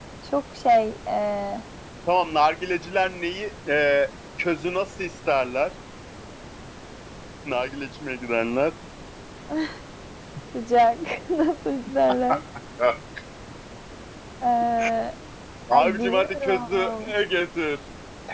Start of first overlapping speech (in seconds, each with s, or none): 15.7 s